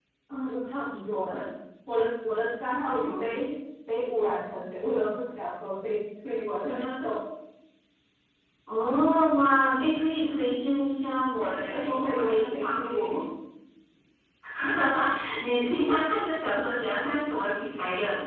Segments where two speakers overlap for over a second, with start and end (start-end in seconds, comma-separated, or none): 11.4-13.2